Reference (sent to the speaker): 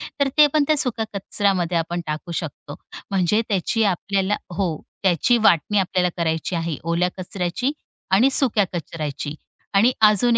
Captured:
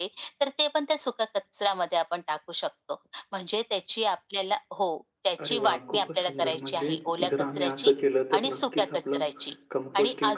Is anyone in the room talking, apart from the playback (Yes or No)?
Yes